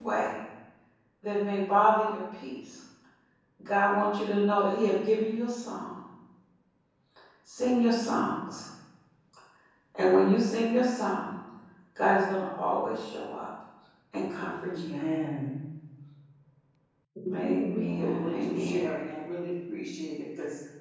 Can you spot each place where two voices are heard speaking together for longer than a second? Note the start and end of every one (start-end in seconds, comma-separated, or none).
17.4-18.8